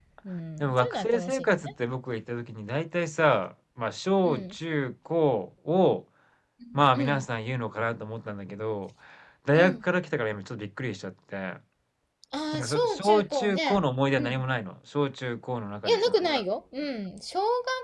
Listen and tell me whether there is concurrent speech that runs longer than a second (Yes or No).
Yes